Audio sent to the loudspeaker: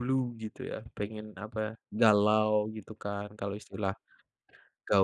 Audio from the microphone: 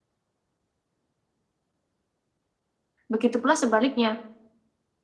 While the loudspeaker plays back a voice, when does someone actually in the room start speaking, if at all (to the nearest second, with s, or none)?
3 s